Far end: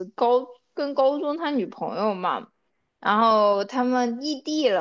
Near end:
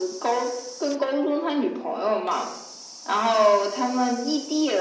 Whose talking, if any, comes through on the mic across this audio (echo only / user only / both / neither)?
echo only